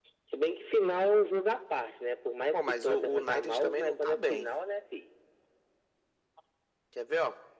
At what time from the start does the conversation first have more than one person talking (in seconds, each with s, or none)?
2.5 s